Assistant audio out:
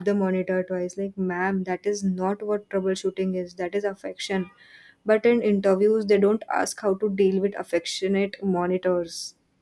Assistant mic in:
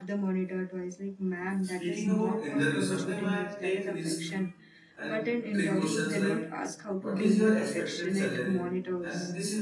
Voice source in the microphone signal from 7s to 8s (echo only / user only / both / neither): both